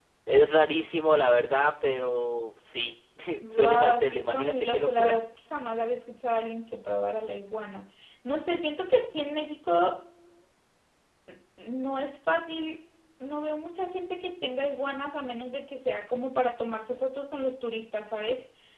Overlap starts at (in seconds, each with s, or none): 3.5 s